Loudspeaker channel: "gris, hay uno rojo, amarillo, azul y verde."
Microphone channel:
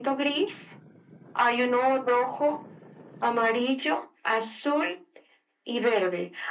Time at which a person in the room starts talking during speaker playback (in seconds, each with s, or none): none